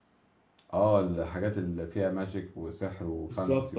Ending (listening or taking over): taking over